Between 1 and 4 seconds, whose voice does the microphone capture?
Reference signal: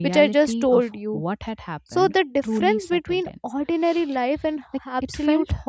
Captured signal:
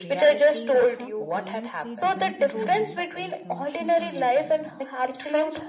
both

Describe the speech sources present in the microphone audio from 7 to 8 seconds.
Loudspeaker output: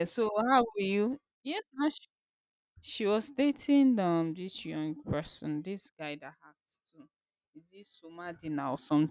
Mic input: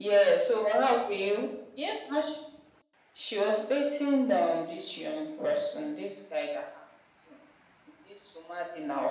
echo only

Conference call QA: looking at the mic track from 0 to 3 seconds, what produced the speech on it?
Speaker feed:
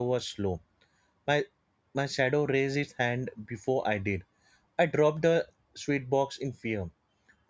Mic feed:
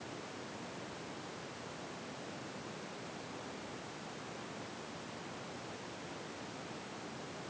neither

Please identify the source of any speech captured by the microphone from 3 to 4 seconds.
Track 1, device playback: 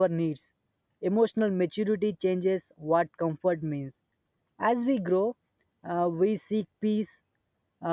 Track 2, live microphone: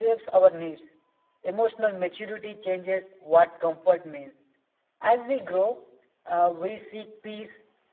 echo only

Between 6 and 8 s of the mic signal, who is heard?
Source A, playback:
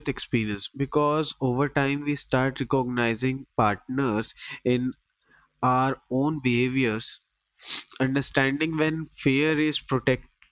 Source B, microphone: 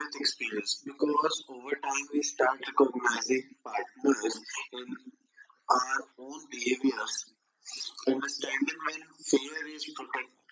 echo only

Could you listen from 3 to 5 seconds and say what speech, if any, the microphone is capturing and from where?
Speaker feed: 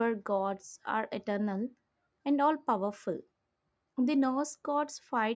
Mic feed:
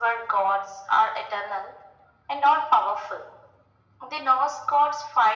echo only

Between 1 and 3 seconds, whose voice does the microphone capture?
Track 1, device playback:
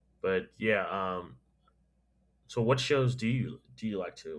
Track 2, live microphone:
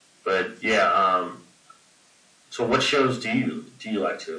echo only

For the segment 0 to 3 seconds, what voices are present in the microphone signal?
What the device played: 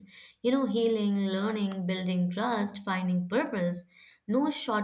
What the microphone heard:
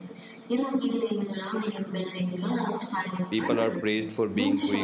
echo only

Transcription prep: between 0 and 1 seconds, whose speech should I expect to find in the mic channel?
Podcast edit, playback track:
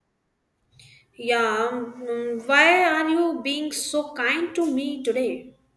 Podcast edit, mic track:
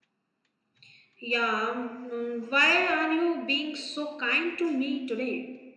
neither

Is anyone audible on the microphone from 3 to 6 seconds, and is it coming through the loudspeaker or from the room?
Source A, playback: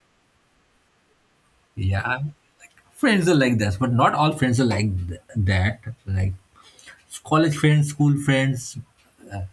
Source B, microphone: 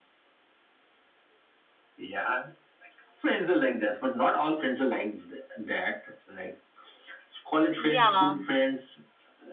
echo only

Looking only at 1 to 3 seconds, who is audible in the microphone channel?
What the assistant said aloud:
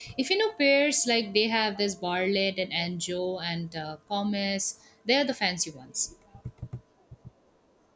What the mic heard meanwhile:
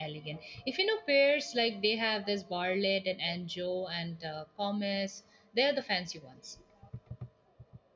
echo only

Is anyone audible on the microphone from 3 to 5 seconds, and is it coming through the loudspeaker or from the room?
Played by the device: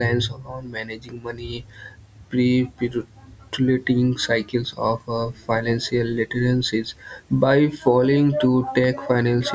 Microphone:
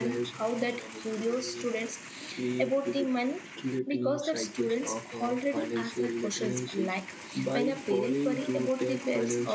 both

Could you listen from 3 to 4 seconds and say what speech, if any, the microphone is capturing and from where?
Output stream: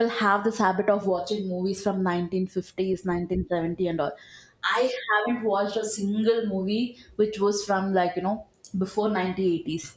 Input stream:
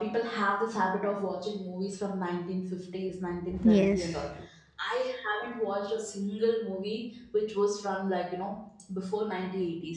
both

